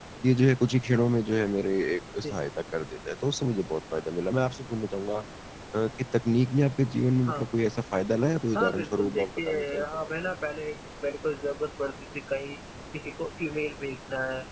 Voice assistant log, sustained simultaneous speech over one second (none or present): present